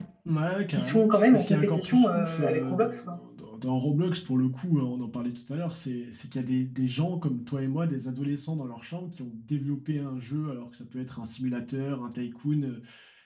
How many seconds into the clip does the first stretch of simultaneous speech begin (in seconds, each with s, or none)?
0.7 s